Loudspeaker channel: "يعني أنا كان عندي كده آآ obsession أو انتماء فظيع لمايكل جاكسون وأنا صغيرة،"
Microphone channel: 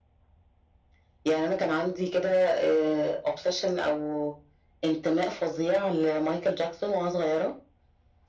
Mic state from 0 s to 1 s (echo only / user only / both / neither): neither